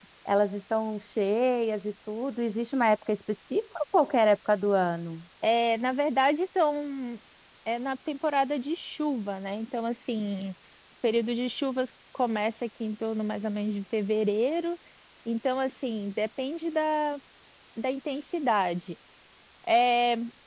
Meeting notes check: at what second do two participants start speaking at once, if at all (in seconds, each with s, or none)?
none